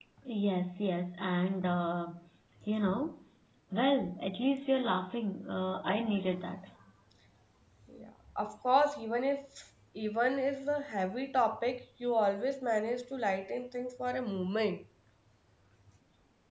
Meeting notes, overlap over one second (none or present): none